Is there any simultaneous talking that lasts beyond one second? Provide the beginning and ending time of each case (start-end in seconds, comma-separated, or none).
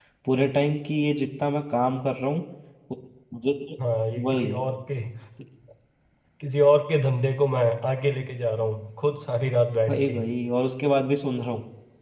none